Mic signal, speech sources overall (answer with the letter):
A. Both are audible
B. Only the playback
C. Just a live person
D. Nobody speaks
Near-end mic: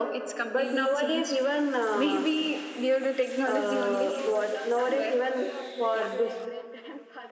A